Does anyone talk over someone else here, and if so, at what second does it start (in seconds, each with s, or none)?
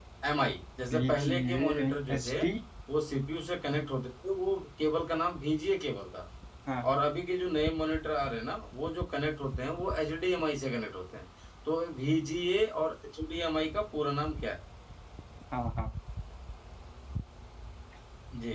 0.9 s